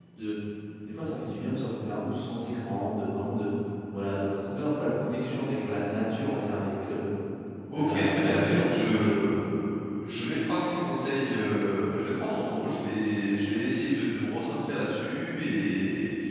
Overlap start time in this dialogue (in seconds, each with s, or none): 7.8 s